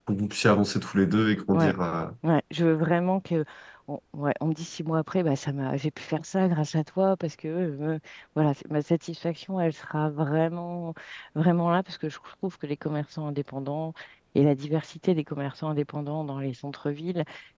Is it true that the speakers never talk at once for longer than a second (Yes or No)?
Yes